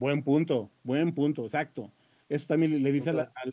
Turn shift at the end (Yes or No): No